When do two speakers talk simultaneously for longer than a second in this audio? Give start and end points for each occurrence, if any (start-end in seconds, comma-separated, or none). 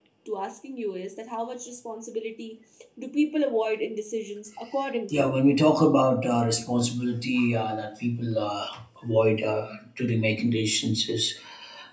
none